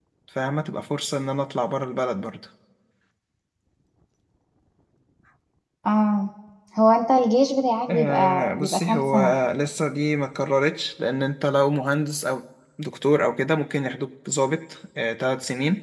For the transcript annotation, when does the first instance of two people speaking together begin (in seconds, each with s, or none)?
7.9 s